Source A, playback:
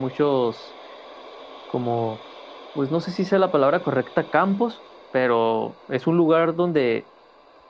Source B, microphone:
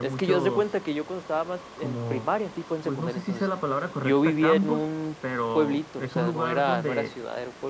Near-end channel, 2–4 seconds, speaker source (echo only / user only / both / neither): both